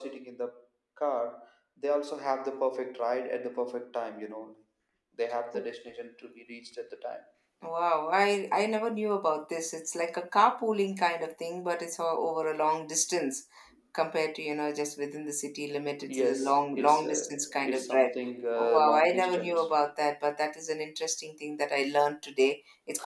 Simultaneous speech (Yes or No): Yes